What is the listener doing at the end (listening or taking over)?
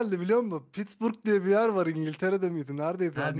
listening